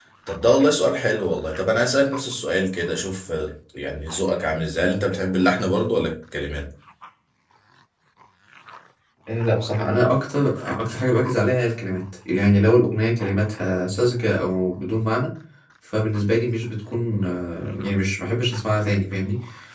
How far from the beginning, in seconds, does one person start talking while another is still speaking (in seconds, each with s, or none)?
none